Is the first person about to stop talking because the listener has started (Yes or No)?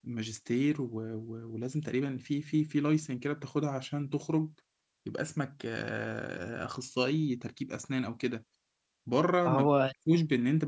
No